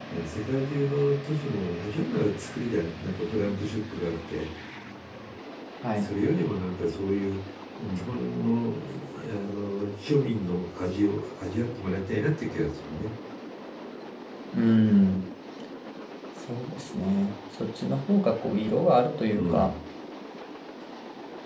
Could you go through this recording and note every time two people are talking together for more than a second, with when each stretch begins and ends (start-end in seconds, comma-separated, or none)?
none